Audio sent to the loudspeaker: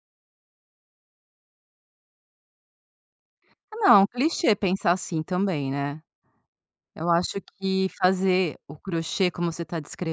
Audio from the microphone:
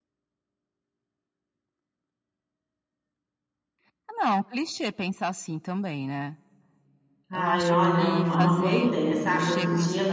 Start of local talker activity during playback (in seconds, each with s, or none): 7.3 s